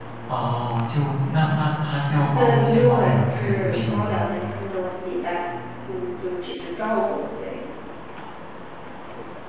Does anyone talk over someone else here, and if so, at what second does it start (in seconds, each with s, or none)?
2.3 s